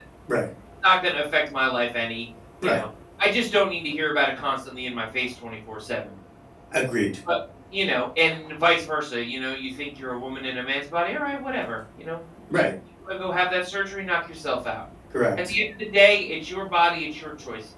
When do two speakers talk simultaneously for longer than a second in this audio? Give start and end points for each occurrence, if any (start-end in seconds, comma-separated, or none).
none